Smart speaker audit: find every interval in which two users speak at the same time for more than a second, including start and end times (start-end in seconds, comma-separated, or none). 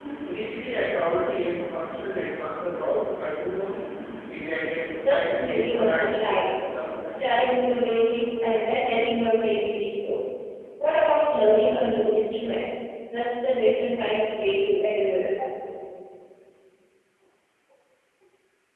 5.0-6.4